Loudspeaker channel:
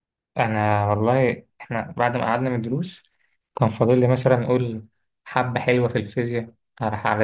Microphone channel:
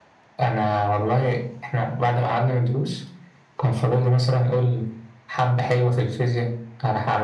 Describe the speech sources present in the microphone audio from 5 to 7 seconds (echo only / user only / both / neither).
echo only